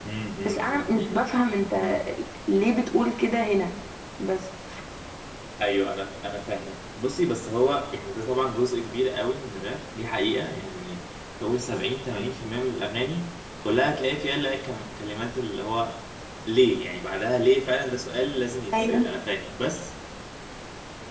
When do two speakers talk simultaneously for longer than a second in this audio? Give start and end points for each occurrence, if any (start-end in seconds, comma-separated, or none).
none